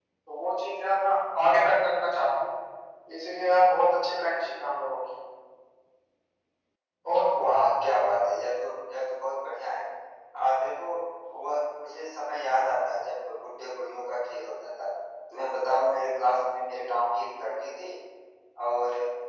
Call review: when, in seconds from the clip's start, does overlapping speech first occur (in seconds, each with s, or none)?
none